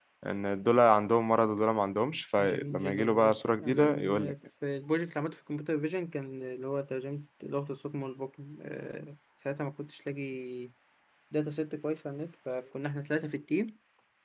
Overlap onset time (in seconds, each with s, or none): 2.4 s